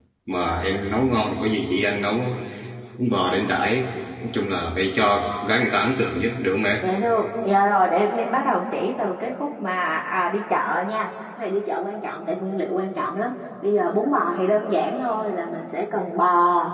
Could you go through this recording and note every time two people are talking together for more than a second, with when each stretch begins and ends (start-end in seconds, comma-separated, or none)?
none